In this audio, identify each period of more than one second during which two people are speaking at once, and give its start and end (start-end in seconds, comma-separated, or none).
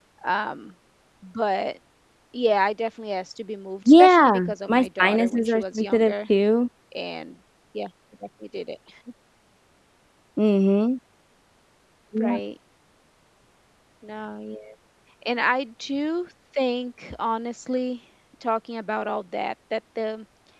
3.9-6.1